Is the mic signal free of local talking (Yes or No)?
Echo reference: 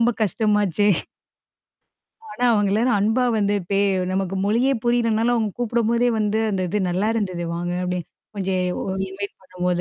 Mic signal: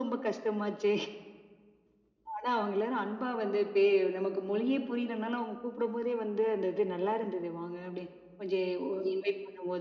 Yes